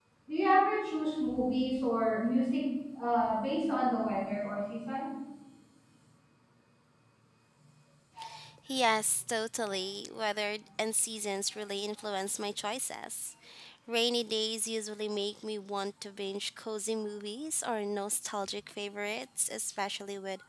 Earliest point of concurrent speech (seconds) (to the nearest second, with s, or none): none